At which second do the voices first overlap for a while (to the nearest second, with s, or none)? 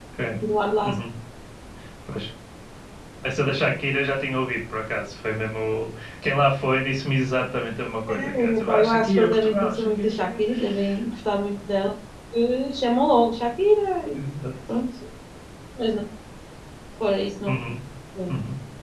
8 s